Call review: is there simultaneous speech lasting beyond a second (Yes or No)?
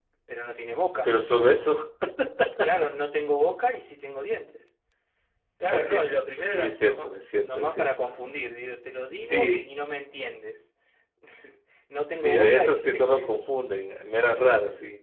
Yes